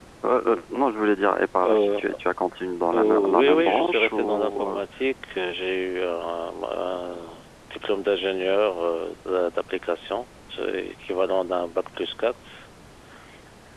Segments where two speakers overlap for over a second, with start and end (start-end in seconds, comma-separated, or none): 3.0-4.8